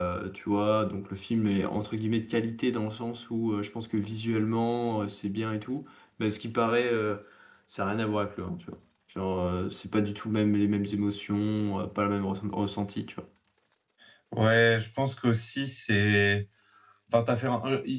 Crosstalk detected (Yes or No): No